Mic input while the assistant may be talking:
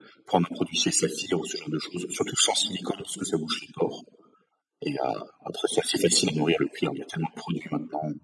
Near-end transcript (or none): none